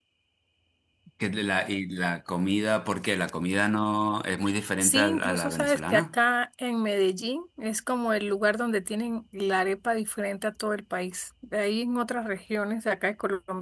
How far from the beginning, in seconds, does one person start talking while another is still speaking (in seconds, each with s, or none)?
4.8 s